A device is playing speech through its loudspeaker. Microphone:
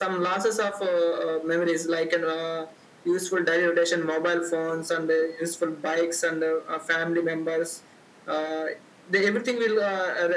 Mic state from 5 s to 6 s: echo only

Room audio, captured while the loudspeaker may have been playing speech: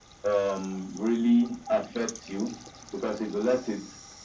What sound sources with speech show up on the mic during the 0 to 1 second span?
echo only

